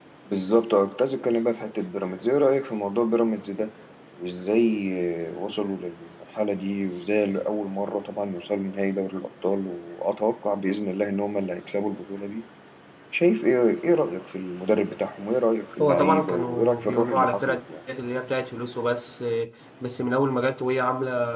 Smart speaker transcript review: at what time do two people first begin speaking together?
15.7 s

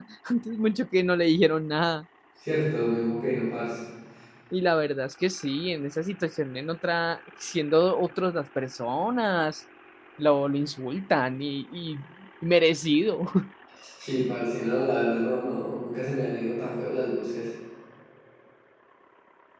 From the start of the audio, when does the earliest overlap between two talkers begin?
none

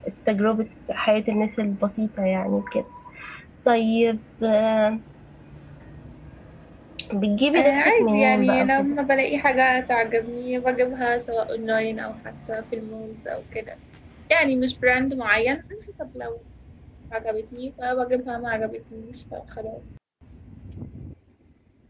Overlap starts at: 7.5 s

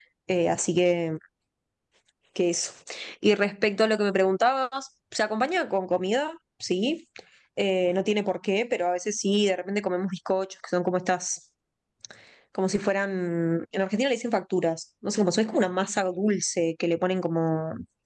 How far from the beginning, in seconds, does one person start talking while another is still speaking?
none

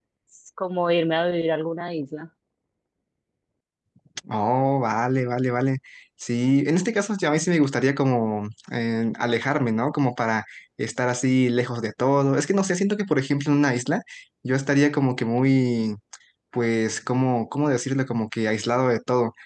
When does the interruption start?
none

